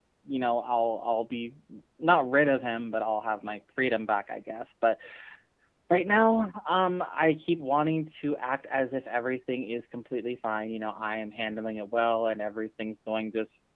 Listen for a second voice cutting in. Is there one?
No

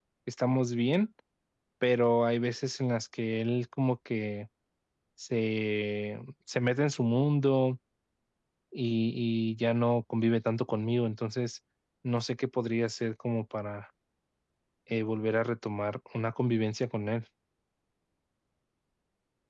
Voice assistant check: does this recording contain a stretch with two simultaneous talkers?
No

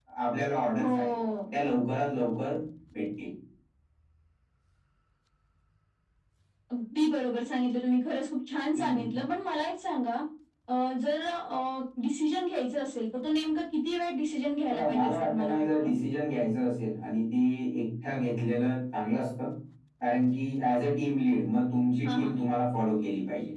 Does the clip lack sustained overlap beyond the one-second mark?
No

